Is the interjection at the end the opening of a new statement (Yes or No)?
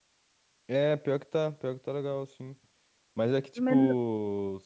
No